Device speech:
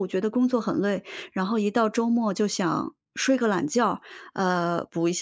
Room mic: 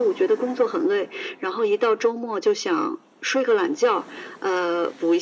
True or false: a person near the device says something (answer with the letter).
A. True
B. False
B